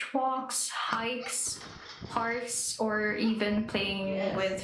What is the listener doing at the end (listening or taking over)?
taking over